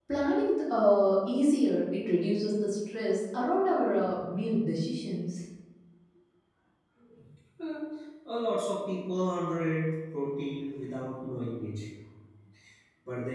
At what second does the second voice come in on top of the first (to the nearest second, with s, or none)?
none